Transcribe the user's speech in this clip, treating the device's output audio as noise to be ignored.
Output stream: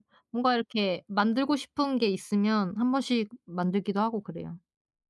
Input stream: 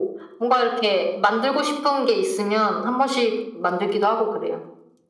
none

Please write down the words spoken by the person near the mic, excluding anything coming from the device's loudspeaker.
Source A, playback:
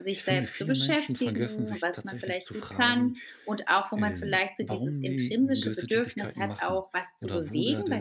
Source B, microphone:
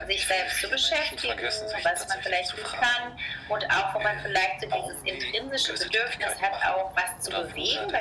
none

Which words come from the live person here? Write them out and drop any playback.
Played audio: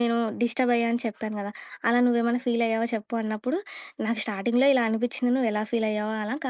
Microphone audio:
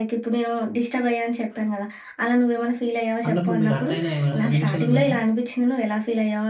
అన్నప్పుడు మీరు హర్ట్ అయిన ఏమైనా సన్నివేశాలున్నాయా?

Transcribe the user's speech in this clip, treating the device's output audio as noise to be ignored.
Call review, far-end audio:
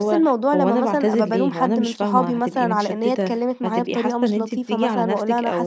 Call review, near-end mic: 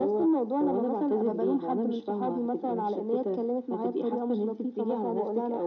none

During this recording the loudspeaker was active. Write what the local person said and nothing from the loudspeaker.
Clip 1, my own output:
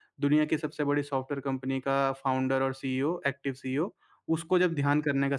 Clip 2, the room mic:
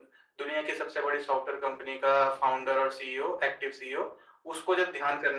none

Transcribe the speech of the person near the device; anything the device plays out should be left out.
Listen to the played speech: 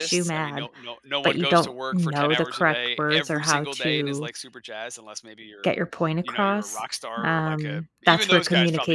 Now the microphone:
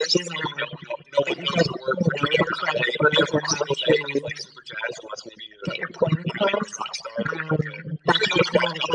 none

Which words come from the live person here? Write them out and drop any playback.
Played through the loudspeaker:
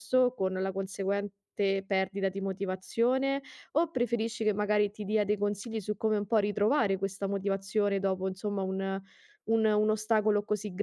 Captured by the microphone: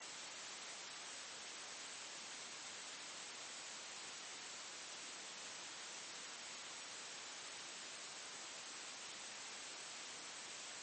none

